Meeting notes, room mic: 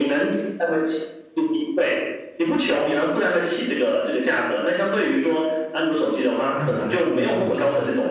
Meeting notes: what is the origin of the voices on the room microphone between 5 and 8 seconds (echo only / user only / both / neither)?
both